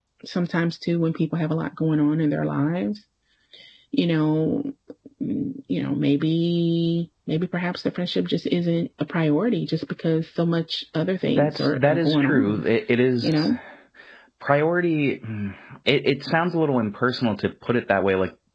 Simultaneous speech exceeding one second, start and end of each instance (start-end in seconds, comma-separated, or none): 11.3-12.6